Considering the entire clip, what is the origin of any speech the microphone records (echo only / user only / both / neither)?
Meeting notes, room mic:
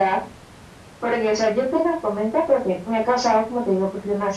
echo only